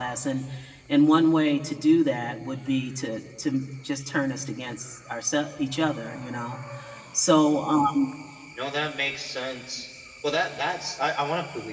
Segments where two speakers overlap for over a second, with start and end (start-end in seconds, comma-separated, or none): none